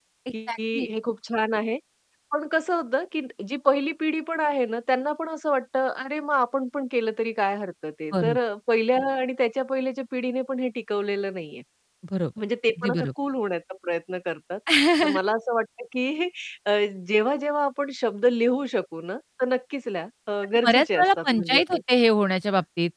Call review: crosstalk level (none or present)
present